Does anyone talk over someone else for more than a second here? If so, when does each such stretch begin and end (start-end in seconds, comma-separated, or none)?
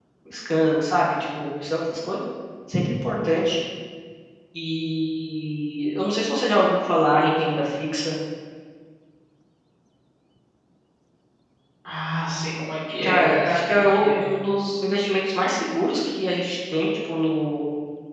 13.0-14.2